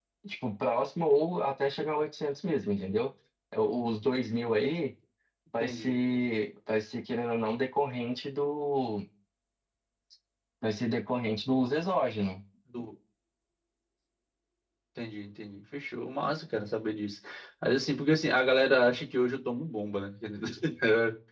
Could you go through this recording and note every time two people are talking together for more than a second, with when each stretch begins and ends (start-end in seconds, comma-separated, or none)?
none